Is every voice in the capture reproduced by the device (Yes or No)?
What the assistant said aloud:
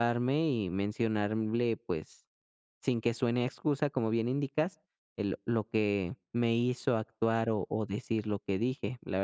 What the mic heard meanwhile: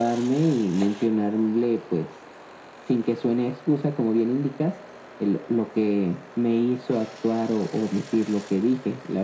Yes